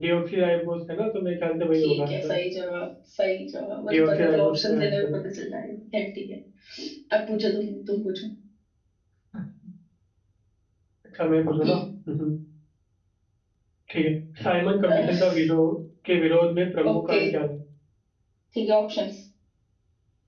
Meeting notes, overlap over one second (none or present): present